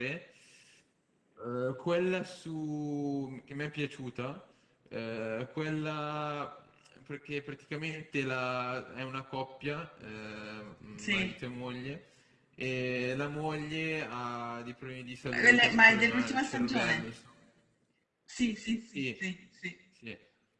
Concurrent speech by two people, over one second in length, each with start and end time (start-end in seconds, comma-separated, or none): 15.3-17.0